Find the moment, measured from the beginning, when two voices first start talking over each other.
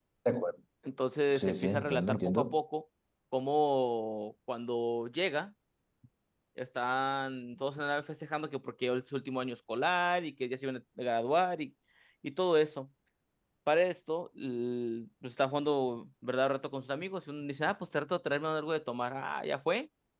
1.3 s

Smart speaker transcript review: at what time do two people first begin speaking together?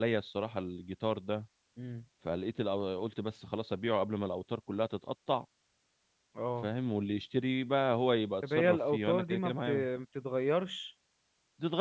8.4 s

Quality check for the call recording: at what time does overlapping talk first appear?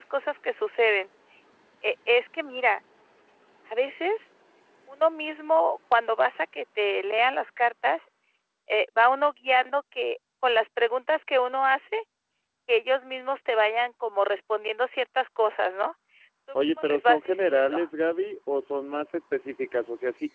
16.6 s

